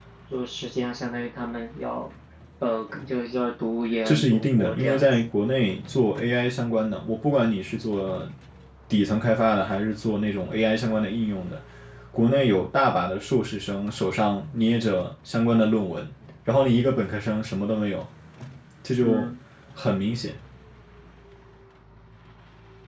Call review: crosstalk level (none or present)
present